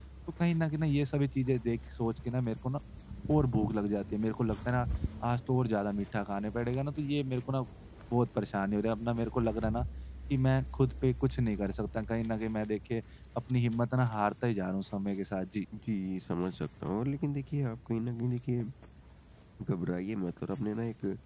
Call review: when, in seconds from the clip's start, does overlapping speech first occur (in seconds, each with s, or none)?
none